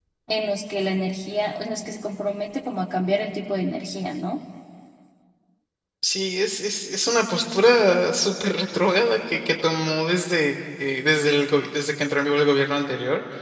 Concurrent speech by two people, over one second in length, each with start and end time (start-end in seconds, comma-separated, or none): none